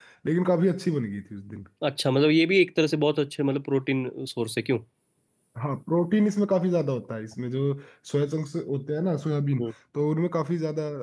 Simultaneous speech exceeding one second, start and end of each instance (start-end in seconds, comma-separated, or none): none